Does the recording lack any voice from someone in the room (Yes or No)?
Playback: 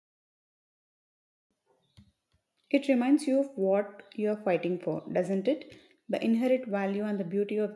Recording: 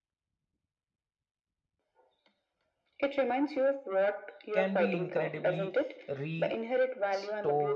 No